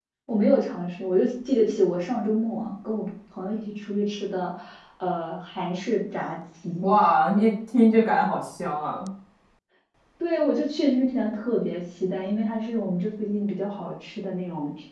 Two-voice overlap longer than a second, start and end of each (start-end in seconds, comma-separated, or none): none